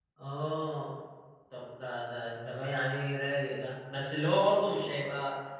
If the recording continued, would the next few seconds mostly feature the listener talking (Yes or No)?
No